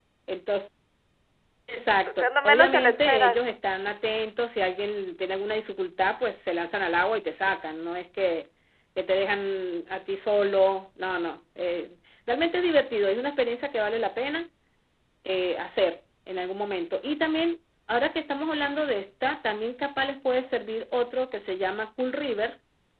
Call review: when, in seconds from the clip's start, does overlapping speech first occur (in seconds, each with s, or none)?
2.2 s